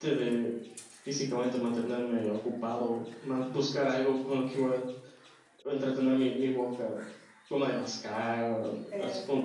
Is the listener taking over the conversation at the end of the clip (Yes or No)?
No